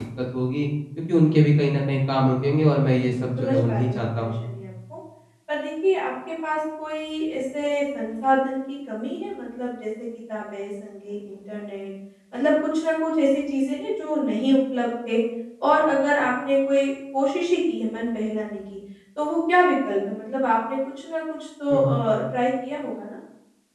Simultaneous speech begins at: 2.9 s

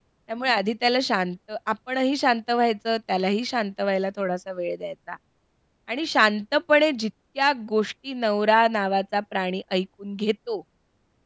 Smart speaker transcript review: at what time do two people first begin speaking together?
none

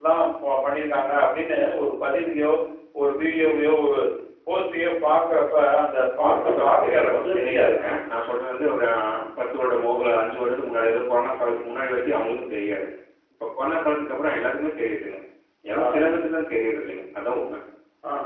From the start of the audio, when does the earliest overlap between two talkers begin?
6.2 s

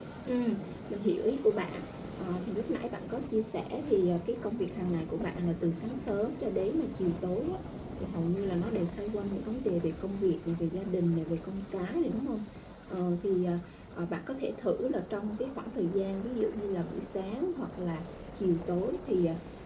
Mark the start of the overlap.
none

